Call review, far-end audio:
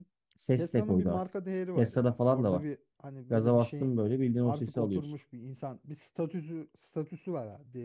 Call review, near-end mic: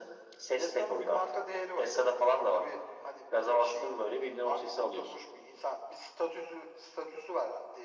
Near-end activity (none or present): none